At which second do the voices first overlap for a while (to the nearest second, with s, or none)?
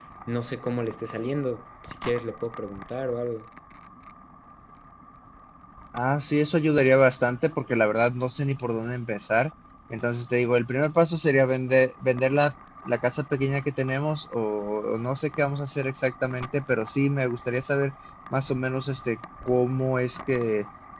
none